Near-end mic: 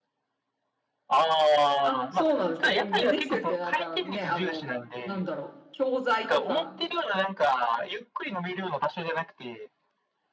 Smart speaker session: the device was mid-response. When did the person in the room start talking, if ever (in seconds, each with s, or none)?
1.8 s